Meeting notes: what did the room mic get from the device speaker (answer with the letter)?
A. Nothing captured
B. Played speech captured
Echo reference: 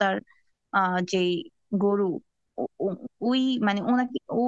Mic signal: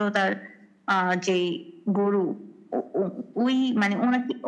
B